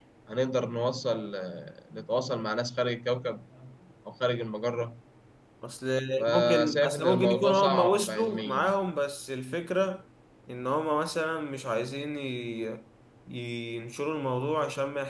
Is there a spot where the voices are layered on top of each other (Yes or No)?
Yes